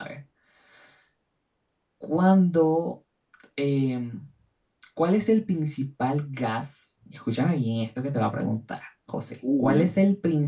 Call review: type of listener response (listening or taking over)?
listening